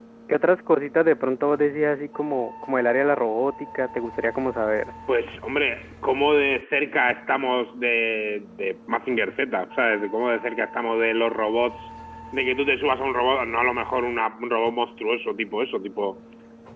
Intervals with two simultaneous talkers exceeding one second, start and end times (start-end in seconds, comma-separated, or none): none